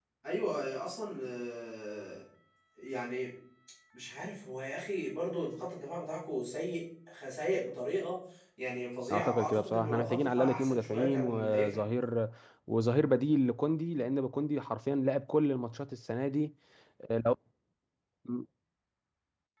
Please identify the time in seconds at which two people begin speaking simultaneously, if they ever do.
9.1 s

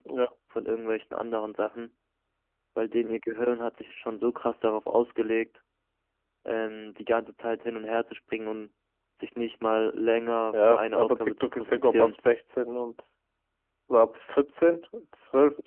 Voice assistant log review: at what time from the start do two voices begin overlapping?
10.5 s

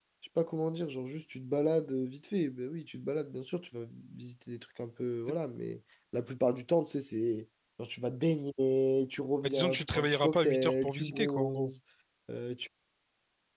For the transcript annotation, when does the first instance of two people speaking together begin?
9.4 s

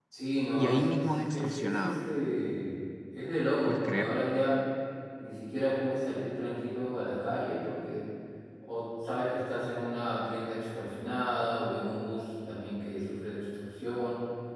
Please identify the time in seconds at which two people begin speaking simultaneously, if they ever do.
0.6 s

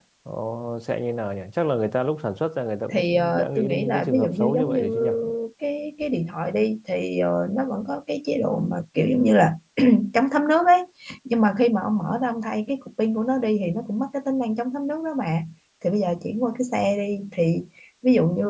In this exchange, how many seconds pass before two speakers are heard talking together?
2.9 s

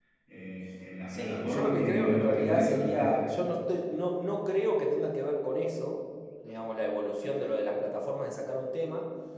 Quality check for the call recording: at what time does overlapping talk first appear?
1.1 s

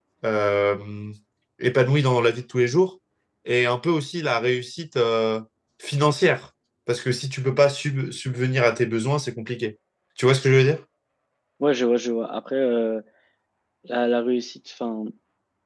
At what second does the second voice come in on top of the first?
none

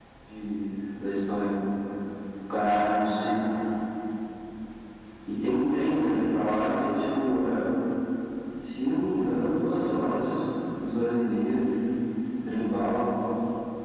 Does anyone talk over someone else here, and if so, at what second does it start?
none

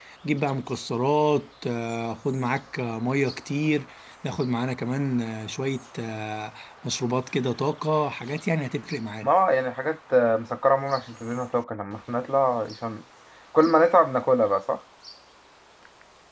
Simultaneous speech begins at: none

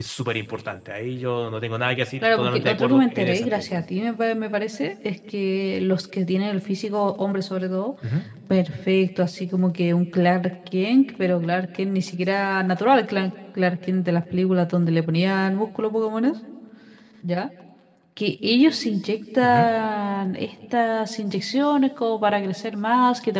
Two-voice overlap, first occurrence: 2.4 s

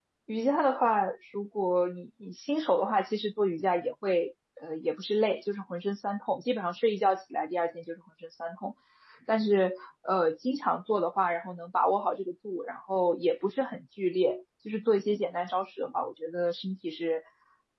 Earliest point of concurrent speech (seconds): none

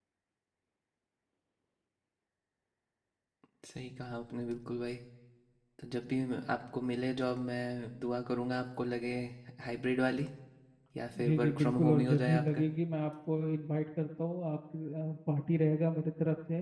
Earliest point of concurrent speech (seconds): 11.2 s

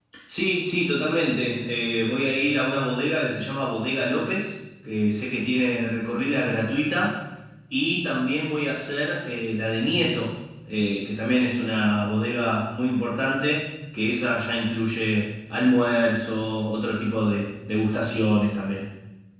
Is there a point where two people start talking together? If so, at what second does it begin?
none

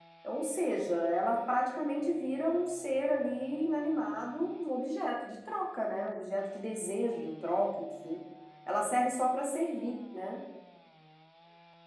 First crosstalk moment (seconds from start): none

